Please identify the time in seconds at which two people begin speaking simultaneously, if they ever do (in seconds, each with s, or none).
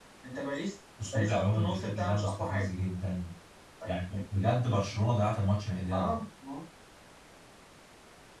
1.1 s